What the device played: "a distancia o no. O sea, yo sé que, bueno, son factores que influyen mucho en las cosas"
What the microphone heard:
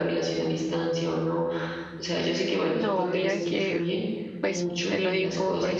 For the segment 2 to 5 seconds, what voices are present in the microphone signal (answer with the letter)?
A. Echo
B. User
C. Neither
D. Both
D